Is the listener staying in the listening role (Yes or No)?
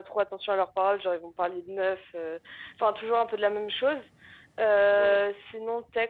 Yes